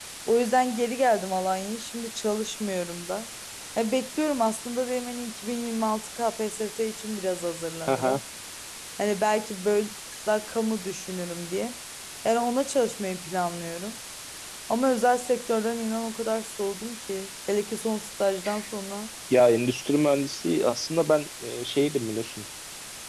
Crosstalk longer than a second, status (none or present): none